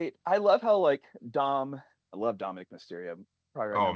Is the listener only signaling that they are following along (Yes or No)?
No